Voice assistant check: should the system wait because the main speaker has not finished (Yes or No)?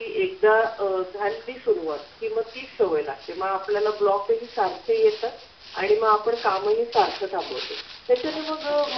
Yes